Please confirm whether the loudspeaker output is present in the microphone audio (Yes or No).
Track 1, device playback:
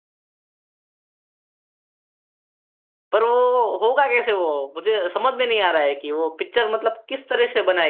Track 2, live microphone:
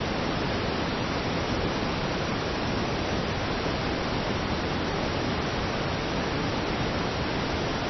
No